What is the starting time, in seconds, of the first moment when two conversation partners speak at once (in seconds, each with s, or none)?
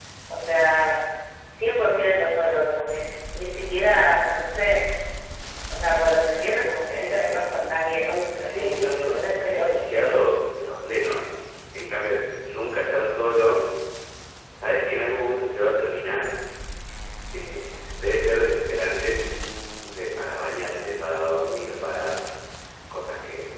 8.4 s